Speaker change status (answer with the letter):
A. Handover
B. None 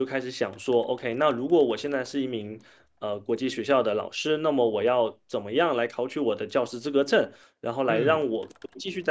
B